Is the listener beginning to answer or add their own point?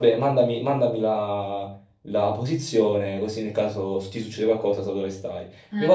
No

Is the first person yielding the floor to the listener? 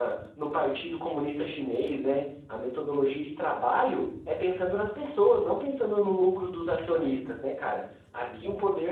No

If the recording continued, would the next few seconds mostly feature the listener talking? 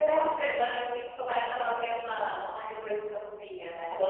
Yes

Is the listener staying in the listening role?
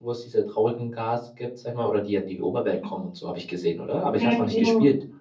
No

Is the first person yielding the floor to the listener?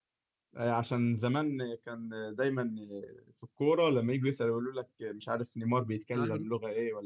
No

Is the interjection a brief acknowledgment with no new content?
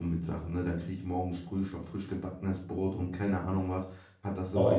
Yes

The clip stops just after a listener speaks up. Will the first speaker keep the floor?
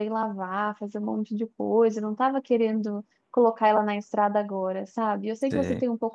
Yes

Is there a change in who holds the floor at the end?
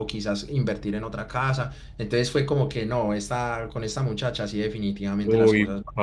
Yes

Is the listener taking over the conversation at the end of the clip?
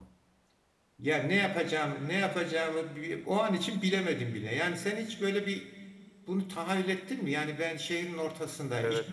No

